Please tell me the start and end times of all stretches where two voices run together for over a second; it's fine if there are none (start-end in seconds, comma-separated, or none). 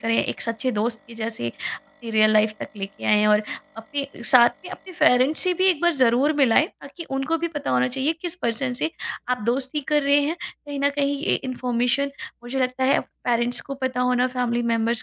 none